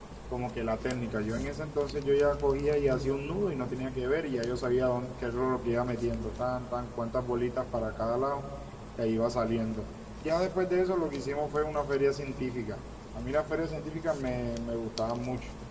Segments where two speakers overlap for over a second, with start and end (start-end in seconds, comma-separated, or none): none